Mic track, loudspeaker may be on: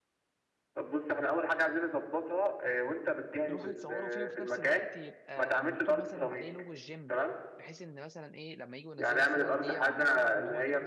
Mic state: both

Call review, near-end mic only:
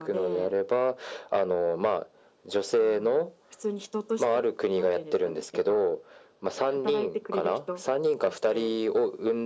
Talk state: echo only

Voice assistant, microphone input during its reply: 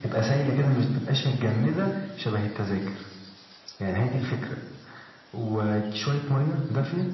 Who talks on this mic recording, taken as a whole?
echo only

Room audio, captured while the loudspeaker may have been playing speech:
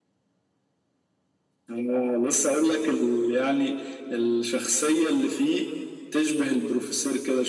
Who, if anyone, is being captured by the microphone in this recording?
echo only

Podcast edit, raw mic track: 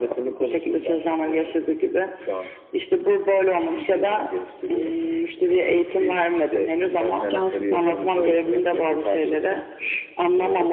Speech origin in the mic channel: both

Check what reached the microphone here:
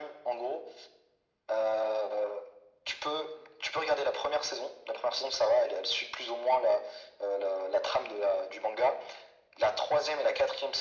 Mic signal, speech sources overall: echo only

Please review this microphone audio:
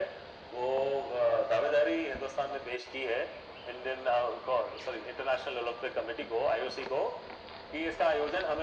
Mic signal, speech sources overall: echo only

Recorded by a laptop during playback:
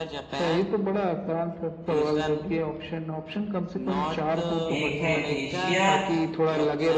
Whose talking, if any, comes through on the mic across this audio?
both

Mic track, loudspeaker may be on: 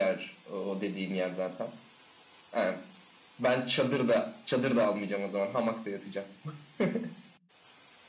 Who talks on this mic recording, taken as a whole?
echo only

